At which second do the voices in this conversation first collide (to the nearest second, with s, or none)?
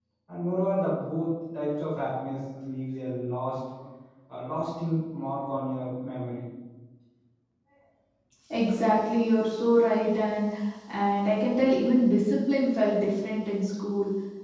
none